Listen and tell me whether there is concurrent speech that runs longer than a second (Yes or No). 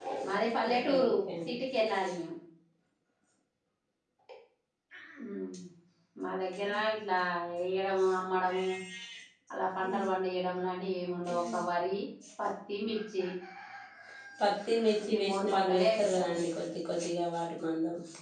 Yes